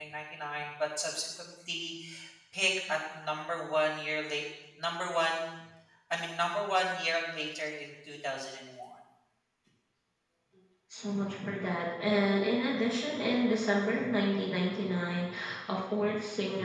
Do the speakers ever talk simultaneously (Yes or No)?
No